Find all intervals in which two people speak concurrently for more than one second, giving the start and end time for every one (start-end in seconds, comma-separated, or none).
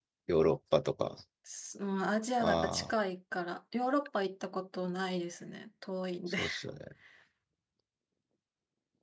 none